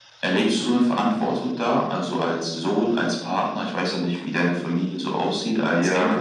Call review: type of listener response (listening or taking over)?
taking over